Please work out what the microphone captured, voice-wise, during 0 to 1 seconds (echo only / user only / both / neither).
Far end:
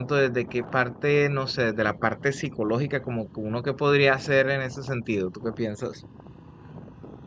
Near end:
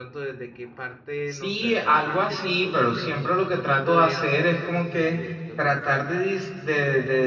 echo only